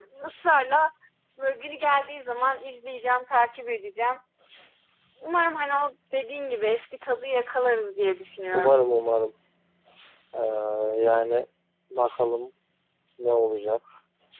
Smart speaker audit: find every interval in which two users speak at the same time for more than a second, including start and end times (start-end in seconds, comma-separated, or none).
none